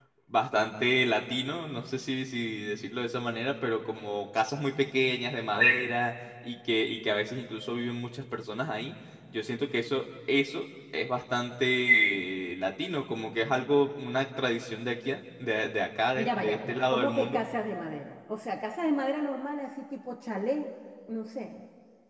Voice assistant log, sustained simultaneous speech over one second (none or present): present